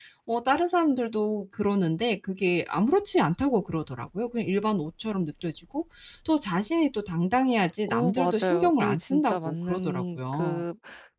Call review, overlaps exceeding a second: present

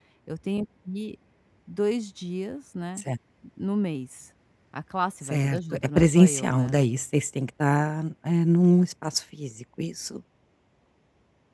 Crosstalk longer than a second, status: present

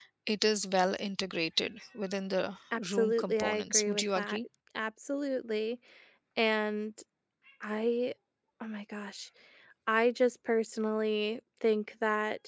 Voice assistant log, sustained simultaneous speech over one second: present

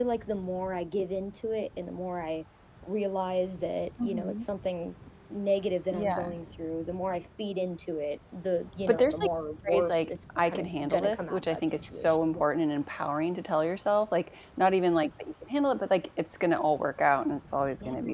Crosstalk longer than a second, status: present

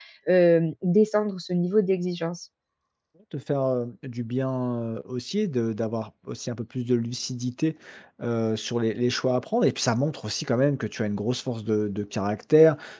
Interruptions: none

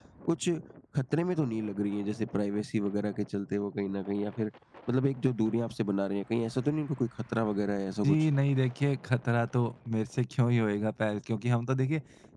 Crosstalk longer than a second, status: none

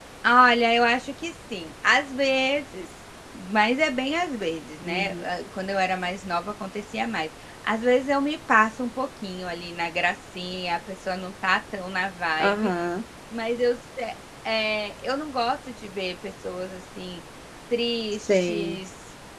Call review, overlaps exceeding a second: none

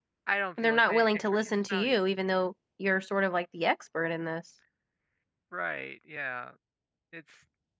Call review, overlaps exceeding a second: present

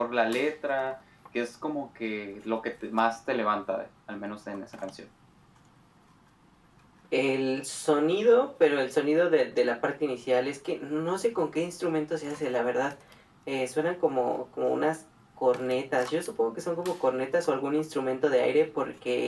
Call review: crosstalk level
none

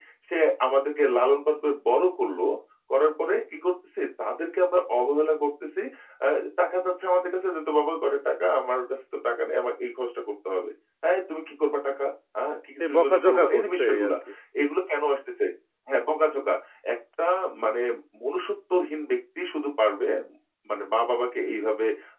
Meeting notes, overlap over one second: present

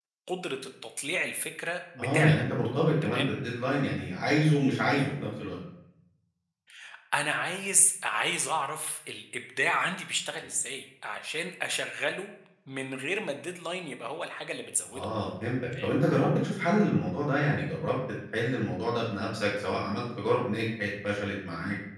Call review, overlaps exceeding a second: none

